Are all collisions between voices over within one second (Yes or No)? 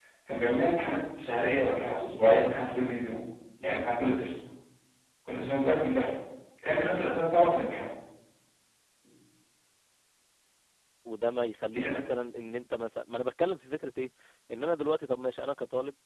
Yes